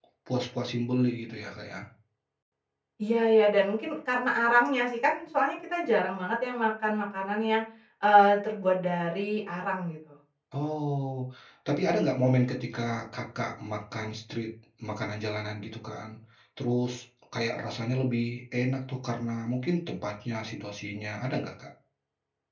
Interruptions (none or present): none